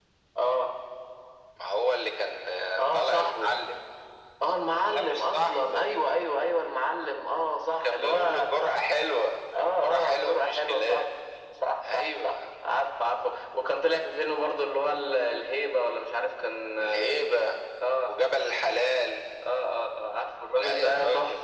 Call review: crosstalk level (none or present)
present